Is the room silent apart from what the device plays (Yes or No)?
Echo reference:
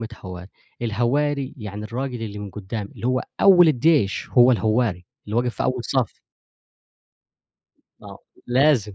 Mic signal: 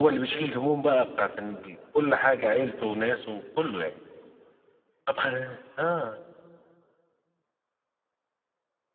No